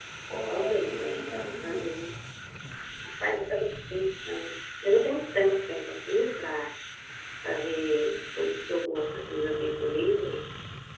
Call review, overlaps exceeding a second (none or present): present